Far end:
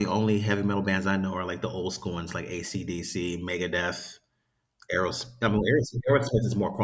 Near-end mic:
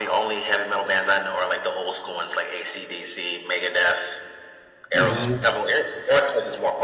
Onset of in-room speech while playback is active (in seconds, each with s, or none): 4.9 s